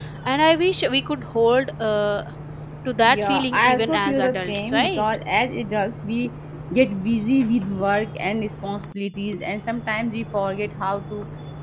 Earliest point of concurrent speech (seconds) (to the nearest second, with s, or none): 3 s